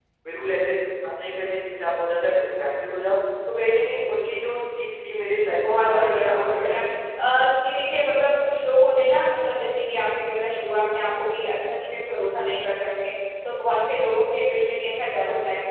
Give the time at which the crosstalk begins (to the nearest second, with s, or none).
5 s